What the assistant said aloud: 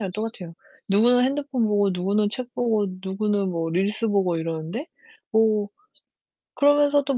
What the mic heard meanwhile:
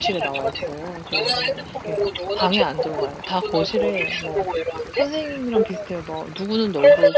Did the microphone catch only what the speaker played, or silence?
No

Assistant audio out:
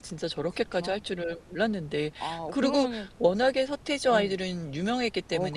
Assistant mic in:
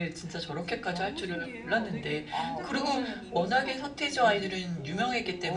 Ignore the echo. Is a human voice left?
Yes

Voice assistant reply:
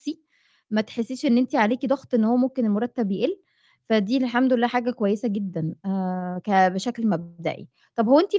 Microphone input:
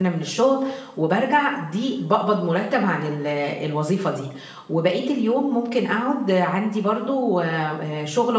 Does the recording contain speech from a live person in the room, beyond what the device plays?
Yes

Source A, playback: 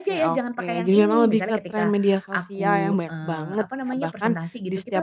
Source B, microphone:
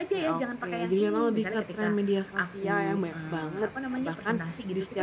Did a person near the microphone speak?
No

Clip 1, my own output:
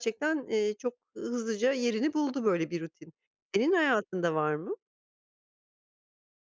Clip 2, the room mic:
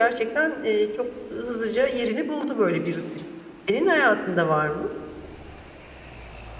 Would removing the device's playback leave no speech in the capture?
Yes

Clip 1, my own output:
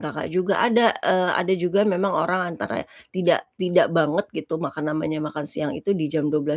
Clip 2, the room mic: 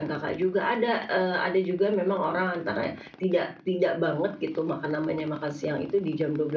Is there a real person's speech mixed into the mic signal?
No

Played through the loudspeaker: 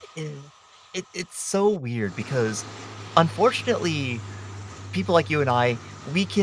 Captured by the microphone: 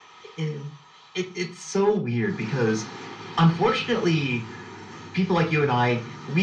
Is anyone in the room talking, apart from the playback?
No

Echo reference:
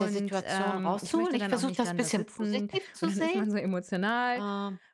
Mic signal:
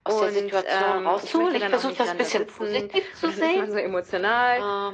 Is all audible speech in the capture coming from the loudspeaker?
Yes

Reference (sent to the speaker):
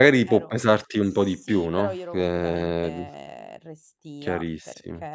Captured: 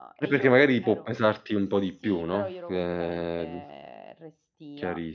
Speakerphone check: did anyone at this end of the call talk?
No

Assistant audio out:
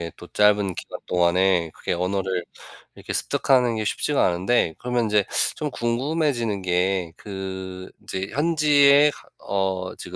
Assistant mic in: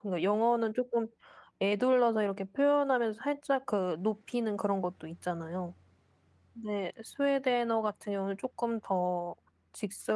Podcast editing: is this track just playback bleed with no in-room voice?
No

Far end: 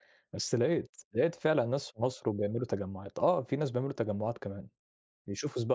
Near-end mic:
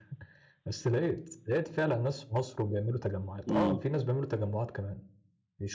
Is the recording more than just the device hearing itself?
Yes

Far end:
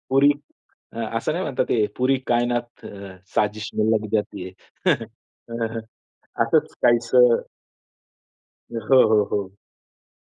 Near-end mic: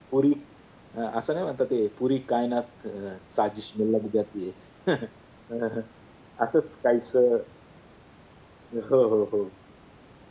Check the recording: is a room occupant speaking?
No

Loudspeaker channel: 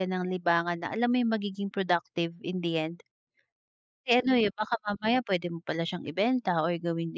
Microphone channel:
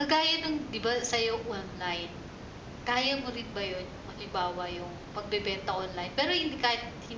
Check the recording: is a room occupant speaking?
Yes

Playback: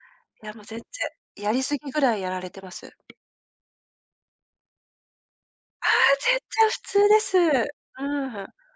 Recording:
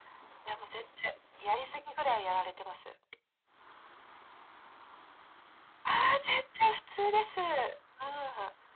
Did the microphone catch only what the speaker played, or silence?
Yes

